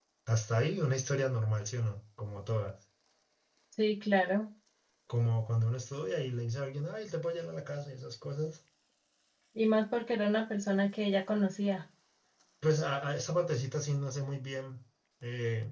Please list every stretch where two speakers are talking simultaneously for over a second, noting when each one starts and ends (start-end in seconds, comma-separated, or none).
none